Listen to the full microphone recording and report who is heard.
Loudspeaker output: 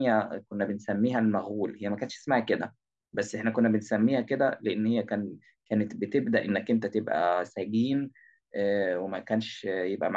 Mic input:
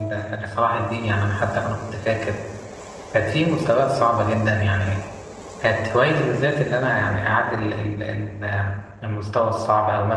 user only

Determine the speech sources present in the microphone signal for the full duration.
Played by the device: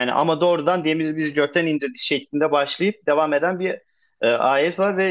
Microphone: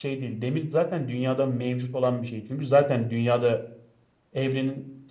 user only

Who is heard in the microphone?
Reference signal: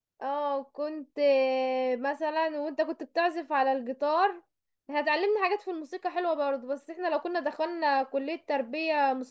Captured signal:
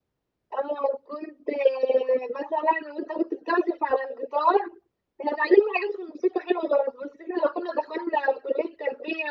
echo only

